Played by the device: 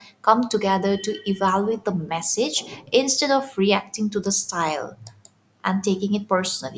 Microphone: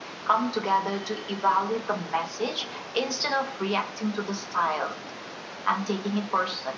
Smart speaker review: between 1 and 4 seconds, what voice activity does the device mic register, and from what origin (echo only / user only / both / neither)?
echo only